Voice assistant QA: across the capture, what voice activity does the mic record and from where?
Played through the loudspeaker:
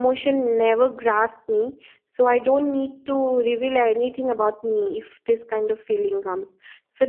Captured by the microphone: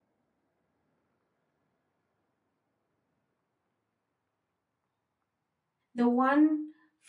user only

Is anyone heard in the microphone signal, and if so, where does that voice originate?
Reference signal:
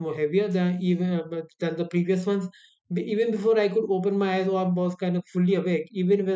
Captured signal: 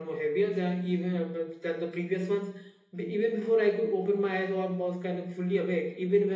echo only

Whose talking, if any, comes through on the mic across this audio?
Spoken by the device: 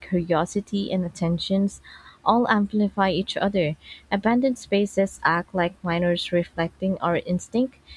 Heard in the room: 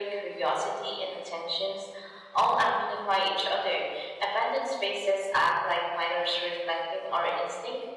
echo only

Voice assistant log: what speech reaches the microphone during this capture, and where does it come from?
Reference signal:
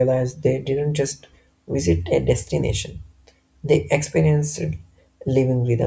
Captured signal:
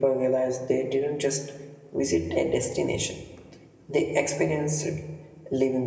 echo only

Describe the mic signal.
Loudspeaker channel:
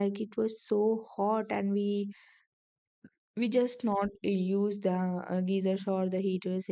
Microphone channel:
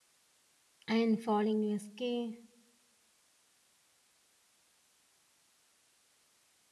user only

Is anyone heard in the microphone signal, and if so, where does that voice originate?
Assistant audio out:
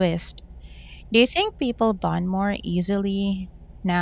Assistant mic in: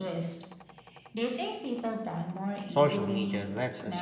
both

